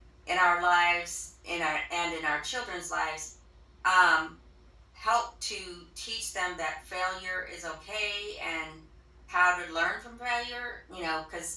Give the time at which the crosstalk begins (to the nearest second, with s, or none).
none